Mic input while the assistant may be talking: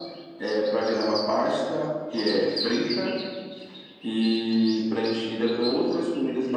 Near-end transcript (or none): none